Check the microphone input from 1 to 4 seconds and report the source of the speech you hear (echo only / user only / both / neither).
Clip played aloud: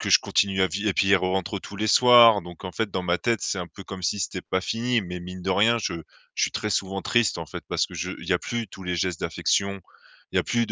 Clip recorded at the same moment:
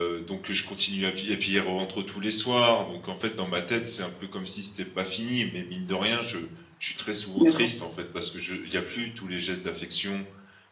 echo only